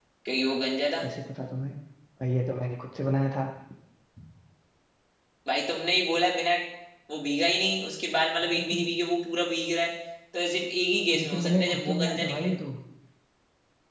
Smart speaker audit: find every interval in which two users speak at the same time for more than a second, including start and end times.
11.2-12.5

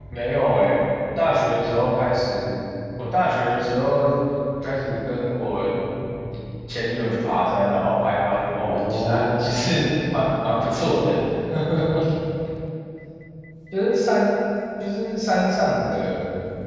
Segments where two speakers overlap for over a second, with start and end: 8.6-9.9

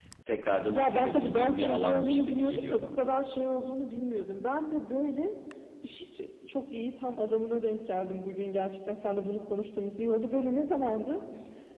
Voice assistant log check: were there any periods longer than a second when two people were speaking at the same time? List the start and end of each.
0.7-3.0

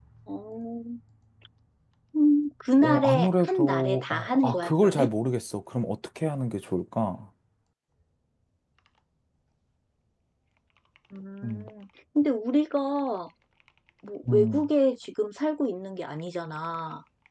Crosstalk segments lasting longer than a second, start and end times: 2.8-5.1

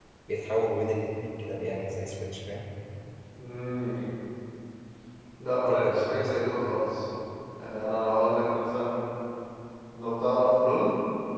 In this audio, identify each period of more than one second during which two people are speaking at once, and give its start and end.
5.7-6.9

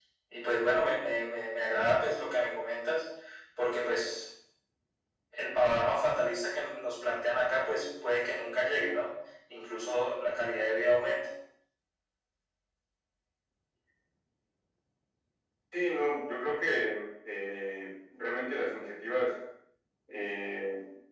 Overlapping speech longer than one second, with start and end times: none

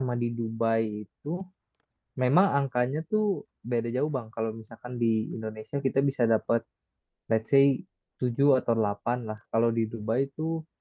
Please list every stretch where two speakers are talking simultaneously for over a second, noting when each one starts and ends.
none

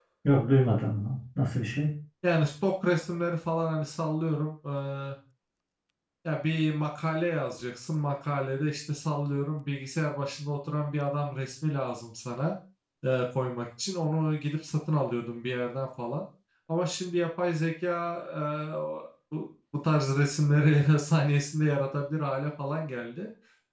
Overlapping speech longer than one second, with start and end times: none

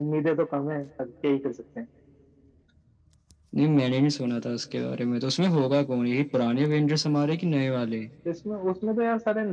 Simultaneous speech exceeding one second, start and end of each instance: none

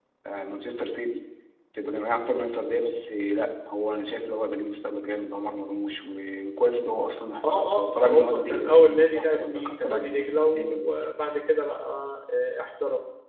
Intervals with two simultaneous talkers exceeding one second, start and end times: 7.5-11.0

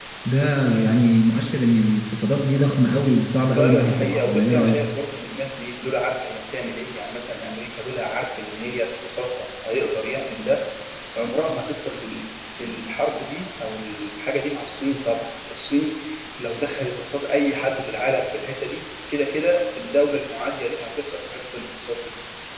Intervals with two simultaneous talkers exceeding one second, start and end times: 3.6-4.8

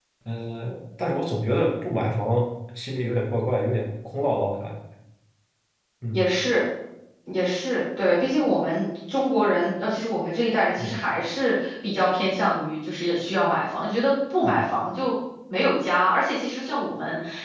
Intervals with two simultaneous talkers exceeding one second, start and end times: none

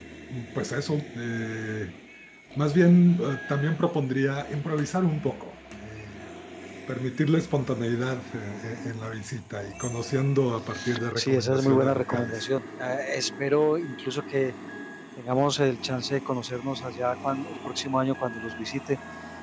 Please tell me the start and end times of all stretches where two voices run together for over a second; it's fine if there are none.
11.2-12.4

